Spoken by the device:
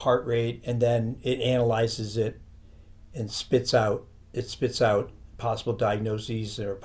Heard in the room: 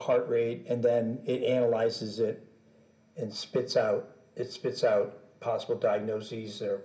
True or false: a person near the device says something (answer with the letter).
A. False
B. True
A